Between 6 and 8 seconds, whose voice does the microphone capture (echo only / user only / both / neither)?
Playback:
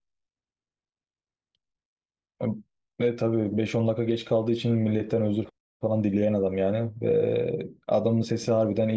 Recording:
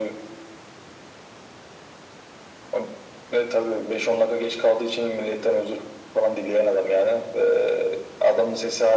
echo only